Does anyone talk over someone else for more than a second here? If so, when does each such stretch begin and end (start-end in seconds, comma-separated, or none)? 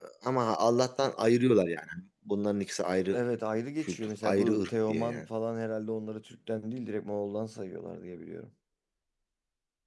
3.8-5.2